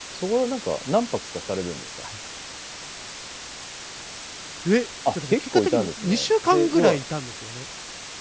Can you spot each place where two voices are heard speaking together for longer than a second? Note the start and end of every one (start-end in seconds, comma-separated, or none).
5.1-7.0